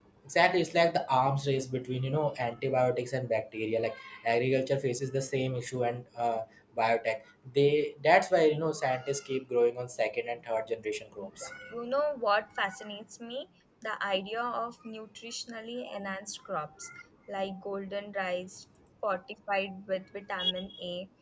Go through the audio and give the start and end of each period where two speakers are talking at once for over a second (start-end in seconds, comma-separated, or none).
none